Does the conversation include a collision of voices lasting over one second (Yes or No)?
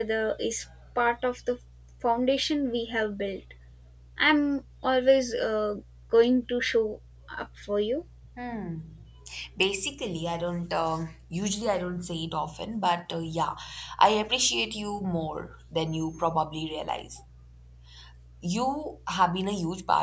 No